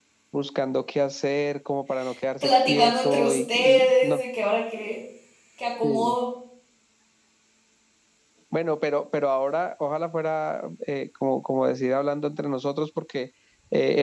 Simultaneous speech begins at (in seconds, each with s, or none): 2.4 s